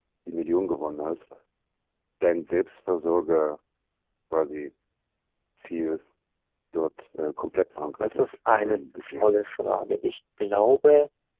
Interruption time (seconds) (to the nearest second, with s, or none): 8 s